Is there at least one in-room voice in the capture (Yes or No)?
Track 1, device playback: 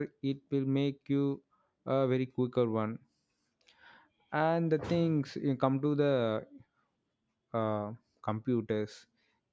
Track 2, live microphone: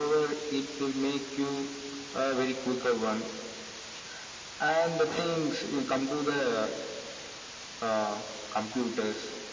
No